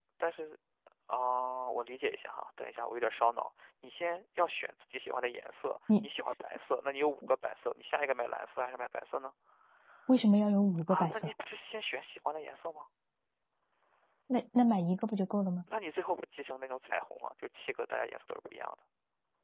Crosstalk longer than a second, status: none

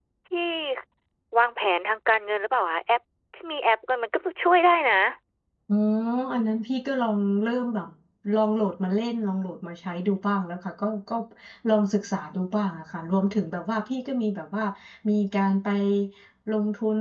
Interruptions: none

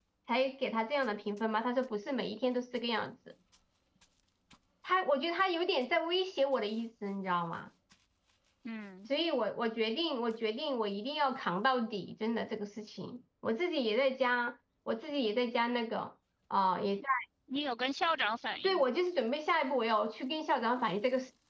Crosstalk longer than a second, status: none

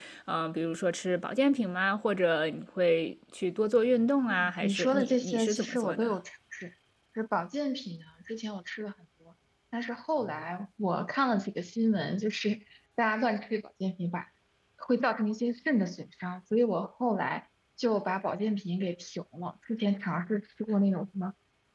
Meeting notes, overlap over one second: present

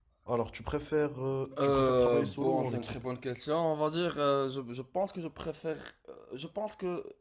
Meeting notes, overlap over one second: present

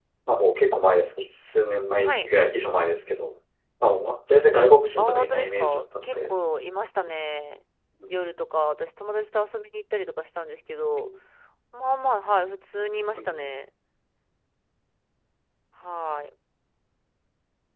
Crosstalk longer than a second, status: present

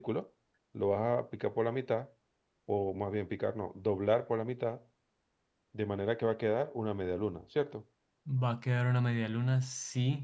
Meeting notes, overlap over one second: none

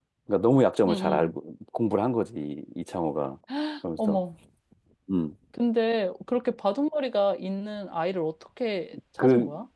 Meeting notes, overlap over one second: none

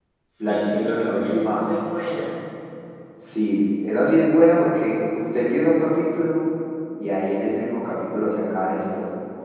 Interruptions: present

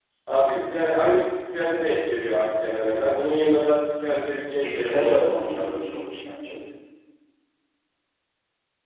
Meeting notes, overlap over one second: present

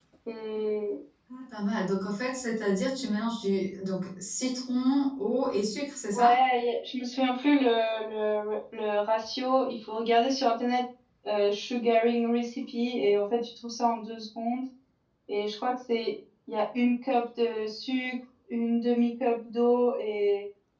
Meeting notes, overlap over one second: none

